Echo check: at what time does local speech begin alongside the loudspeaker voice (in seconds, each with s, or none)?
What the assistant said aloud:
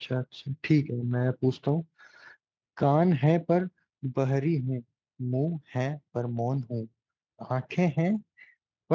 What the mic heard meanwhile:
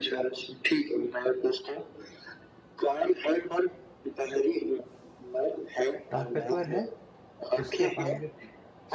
6.1 s